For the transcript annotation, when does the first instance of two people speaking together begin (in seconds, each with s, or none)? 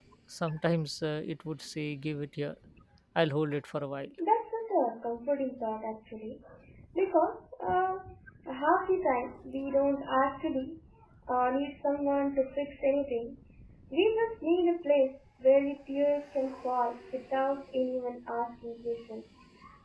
none